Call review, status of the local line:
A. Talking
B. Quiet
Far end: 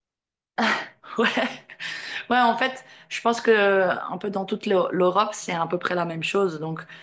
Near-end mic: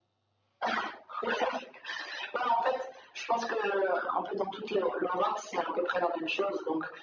B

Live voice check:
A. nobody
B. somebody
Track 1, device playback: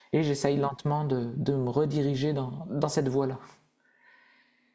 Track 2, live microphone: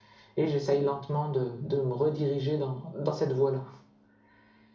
A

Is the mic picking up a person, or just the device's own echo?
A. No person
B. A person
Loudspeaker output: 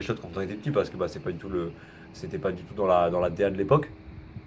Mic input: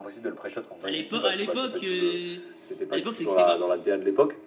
B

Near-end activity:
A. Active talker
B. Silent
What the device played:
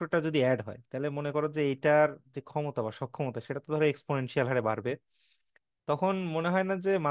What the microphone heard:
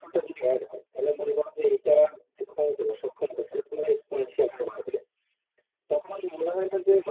B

